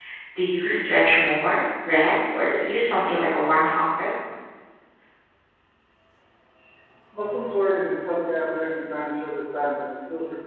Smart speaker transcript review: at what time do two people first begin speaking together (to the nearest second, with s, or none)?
none